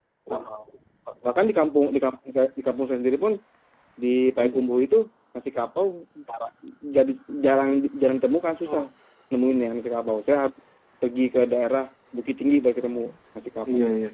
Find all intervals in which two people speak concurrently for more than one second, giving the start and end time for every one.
none

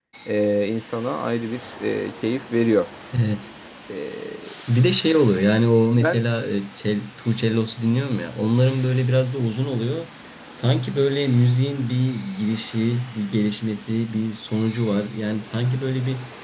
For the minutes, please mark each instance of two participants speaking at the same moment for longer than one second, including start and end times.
none

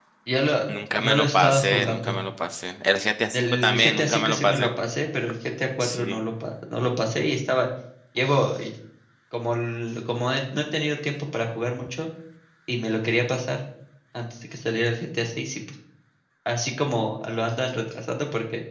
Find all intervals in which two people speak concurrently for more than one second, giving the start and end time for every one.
1.0-2.2, 3.3-4.7

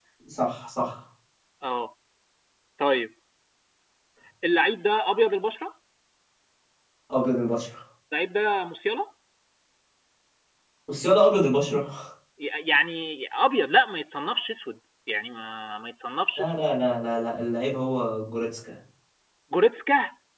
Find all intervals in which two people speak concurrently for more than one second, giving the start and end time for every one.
none

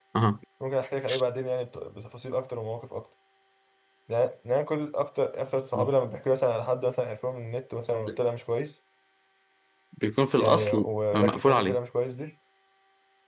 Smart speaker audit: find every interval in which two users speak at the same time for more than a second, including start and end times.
10.4-11.8

